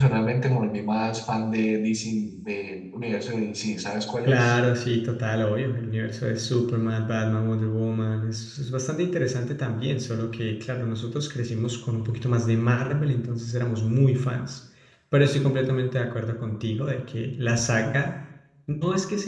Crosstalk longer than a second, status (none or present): none